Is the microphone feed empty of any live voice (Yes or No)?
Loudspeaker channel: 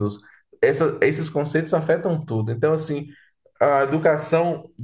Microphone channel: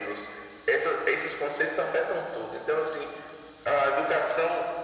Yes